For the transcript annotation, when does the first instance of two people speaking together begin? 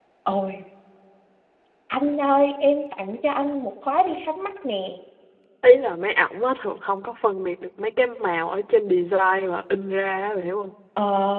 none

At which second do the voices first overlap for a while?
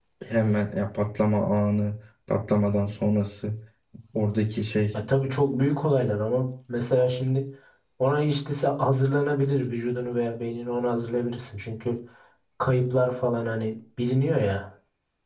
none

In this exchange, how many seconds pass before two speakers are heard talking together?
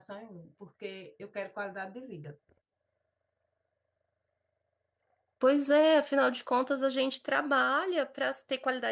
none

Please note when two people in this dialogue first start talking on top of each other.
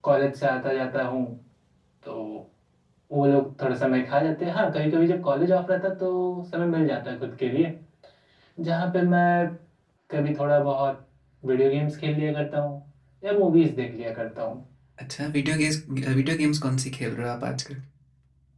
none

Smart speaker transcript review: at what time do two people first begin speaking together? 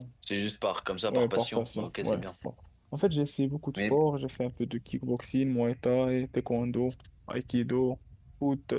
1.1 s

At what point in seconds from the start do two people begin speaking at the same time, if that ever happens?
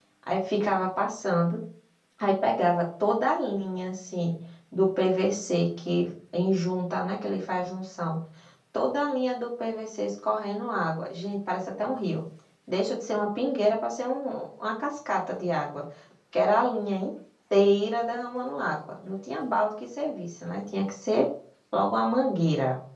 none

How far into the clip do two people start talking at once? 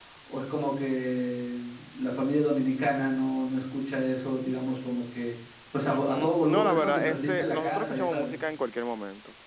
5.8 s

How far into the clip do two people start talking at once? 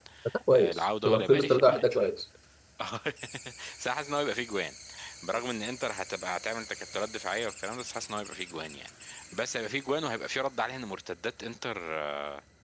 0.6 s

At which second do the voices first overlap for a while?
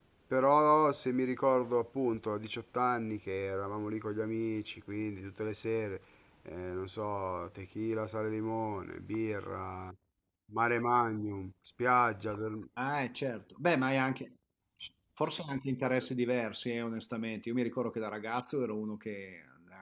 none

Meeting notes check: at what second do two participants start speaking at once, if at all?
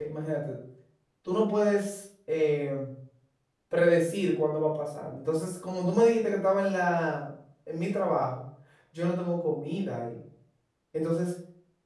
none

